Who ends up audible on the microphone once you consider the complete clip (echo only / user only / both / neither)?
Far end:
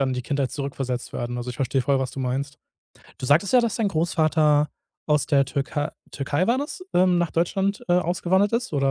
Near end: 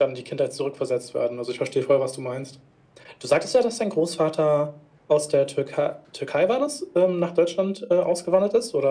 echo only